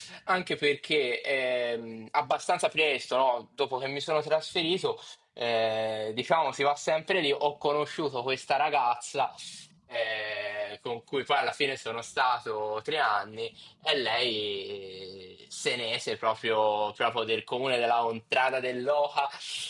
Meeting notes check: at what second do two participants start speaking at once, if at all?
none

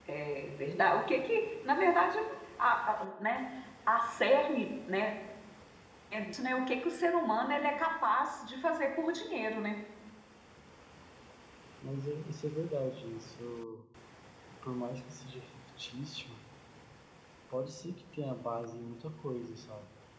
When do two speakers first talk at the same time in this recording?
none

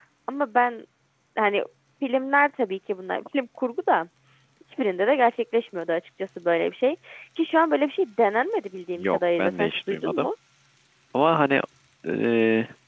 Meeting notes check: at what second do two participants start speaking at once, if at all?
9 s

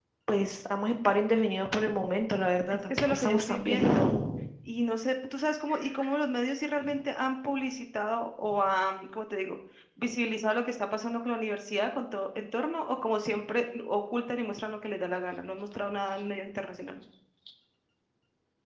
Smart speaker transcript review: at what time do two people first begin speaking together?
3 s

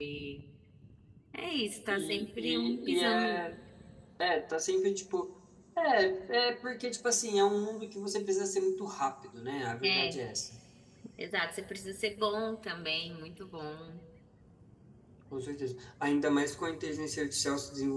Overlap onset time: 2 s

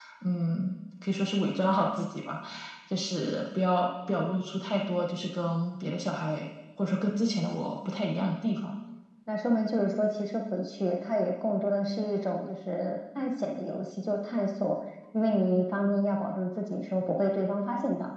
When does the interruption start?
none

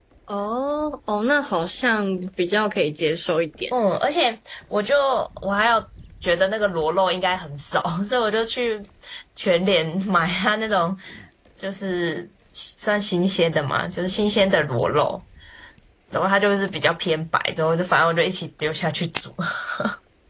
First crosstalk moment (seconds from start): none

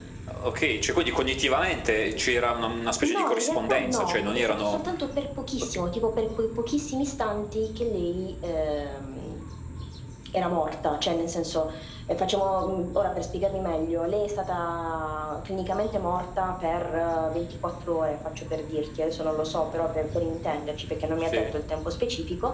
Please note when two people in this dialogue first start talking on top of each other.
3 s

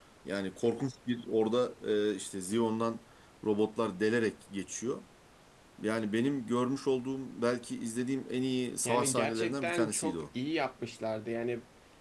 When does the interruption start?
9 s

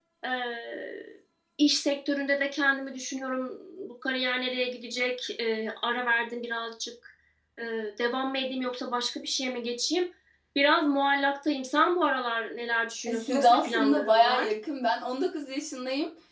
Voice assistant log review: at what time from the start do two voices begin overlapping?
13 s

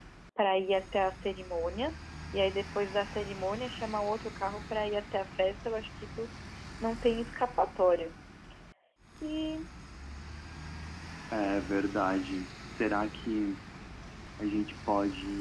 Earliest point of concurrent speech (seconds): none

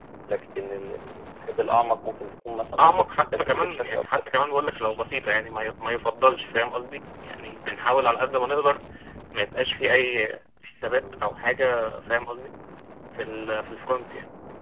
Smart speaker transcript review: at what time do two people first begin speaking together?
3 s

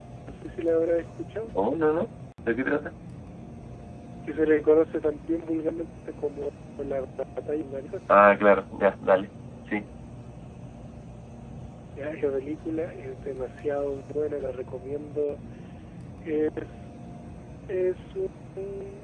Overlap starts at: none

